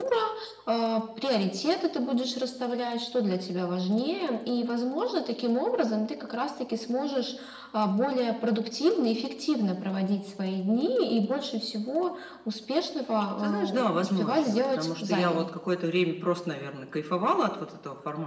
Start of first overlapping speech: 13.4 s

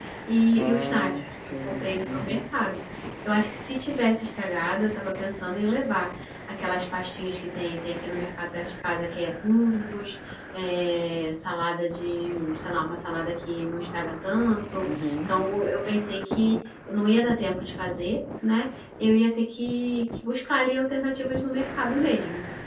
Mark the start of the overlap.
0.6 s

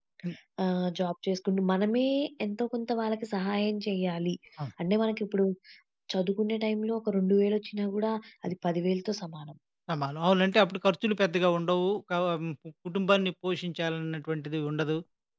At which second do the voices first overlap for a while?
none

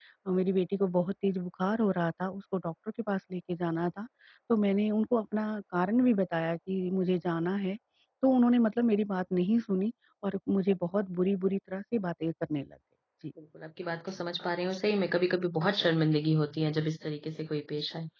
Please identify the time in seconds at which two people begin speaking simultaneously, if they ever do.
none

